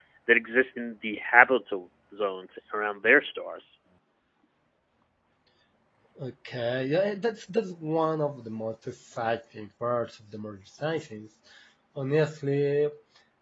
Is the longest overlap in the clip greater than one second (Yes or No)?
No